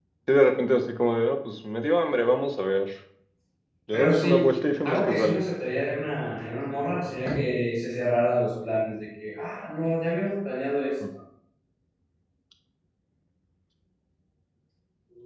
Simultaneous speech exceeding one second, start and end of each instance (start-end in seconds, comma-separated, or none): 3.9-5.4